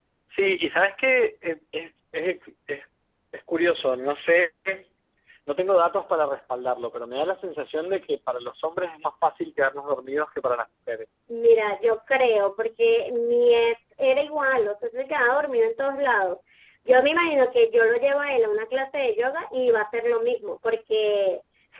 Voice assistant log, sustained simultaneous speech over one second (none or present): none